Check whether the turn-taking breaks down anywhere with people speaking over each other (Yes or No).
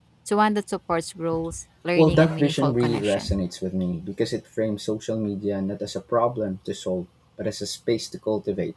Yes